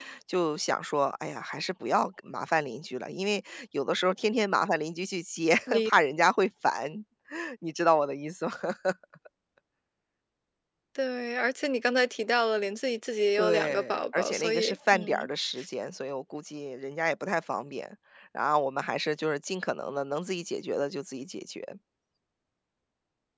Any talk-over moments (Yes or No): Yes